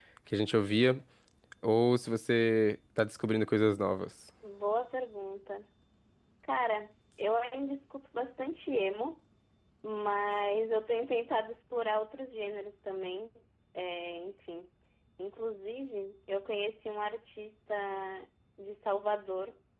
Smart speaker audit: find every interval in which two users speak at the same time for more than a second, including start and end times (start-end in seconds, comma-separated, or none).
none